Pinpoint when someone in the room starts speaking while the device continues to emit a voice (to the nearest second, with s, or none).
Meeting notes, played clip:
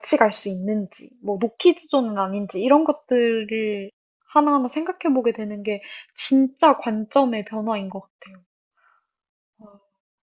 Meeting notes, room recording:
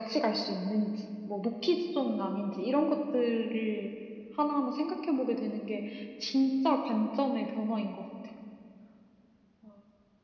none